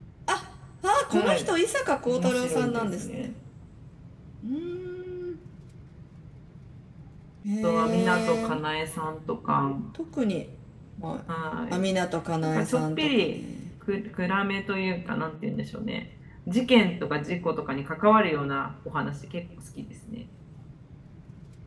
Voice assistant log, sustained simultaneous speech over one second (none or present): present